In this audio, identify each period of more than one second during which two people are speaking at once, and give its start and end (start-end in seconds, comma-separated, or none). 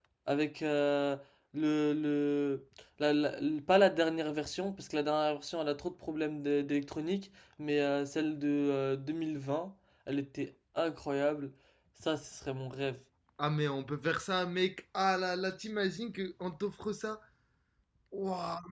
none